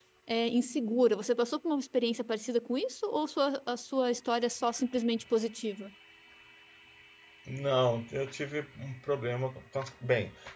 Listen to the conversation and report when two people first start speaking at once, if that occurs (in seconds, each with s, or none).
none